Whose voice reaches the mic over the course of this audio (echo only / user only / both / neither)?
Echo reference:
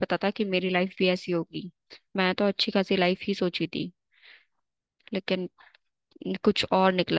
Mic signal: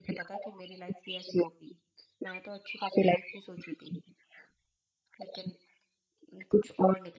echo only